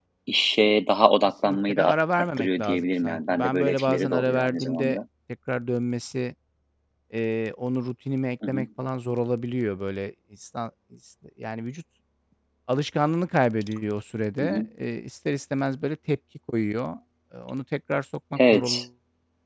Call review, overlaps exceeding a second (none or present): present